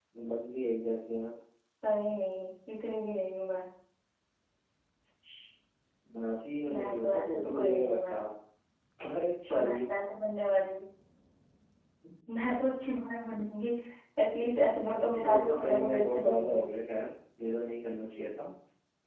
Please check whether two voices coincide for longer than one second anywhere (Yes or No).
Yes